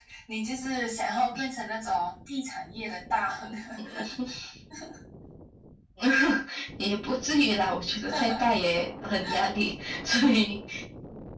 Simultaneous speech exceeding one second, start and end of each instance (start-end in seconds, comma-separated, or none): none